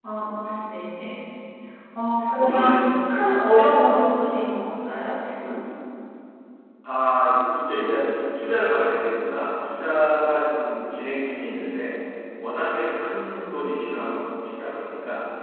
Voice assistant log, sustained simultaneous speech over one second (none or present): none